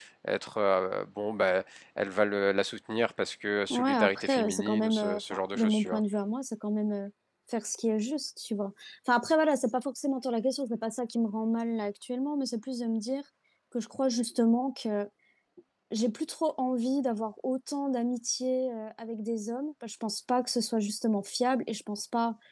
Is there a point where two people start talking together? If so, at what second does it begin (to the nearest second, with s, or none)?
4 s